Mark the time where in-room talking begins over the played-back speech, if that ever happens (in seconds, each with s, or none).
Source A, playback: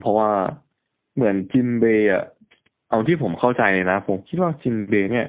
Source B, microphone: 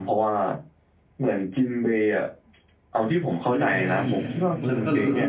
3.4 s